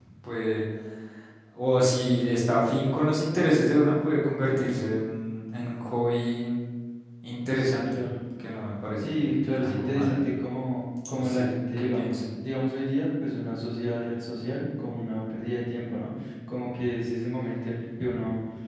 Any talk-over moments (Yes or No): Yes